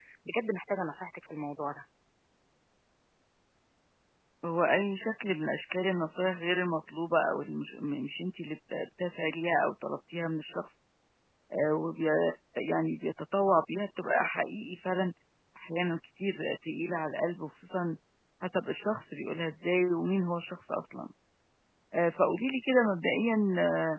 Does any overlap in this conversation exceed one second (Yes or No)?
No